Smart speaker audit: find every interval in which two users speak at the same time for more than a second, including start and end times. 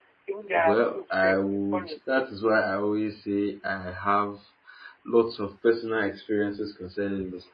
0.6-2.0

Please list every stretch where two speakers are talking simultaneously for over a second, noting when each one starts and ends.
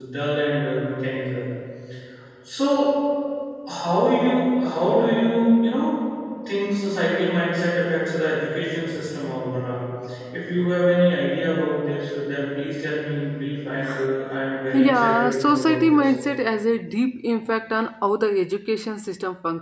14.7-16.1

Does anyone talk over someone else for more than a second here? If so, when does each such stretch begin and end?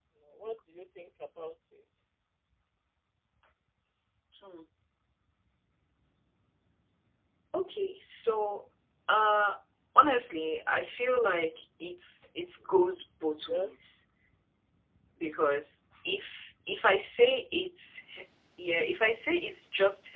none

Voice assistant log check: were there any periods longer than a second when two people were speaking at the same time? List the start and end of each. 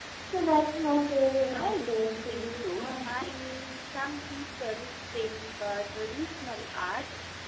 1.5-3.1

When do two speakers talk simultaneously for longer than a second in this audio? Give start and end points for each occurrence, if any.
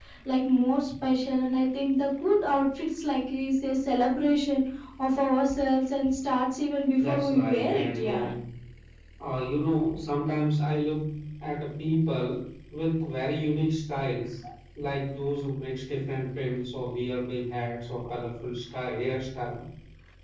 7.1-8.3

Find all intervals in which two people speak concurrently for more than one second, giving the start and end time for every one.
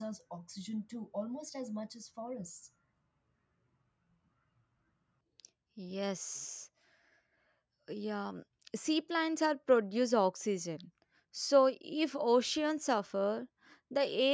none

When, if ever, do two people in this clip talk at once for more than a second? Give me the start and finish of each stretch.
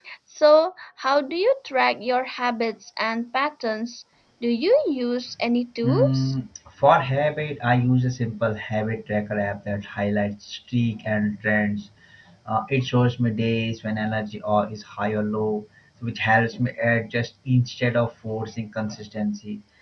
none

